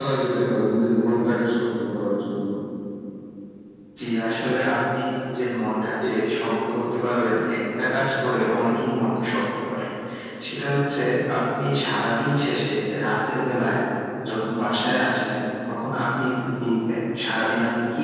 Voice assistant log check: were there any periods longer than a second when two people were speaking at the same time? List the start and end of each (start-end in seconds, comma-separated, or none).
none